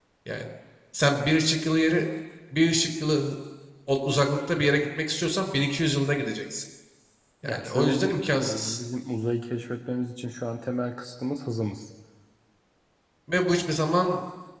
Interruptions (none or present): present